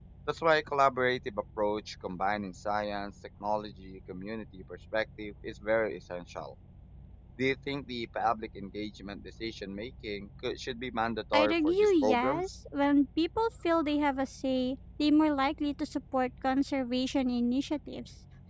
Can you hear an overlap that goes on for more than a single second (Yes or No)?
Yes